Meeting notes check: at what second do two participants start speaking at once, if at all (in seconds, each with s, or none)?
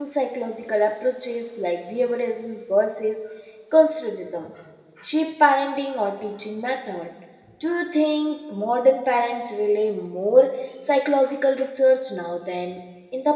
none